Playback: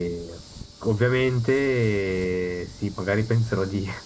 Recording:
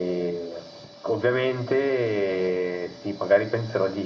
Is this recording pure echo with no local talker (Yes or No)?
Yes